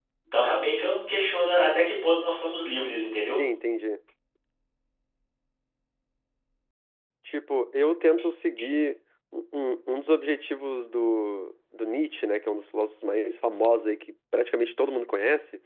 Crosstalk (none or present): none